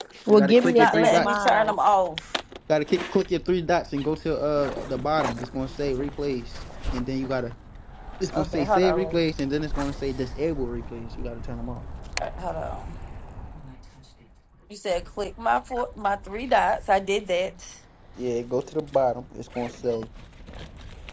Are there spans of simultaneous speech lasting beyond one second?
Yes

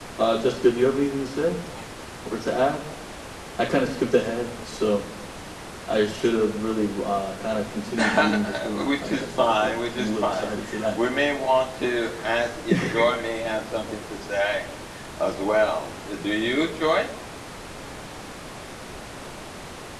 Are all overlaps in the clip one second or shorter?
No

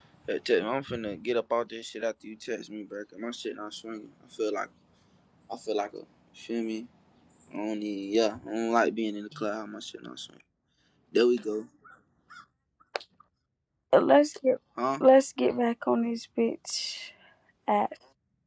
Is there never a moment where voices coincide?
Yes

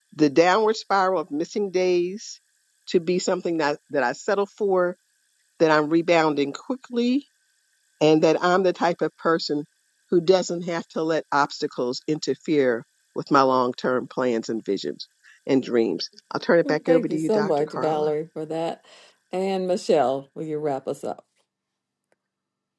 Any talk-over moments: Yes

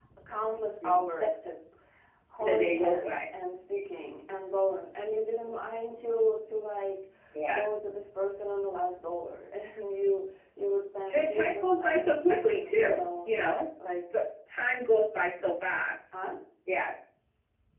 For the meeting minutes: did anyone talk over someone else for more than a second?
Yes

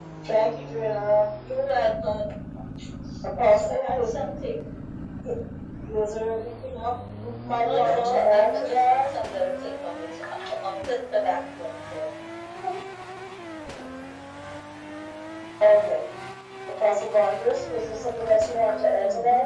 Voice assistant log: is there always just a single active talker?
No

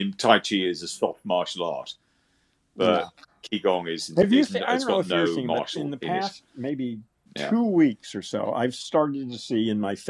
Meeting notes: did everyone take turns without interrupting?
No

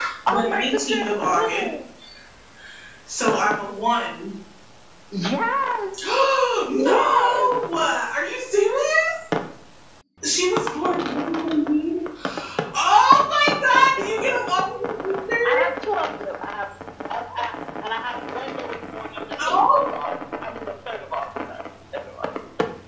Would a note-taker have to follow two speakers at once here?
Yes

